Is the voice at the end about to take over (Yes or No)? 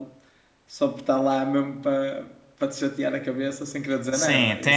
Yes